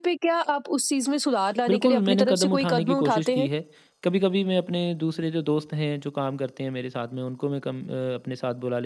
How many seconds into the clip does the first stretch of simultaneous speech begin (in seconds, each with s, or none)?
1.7 s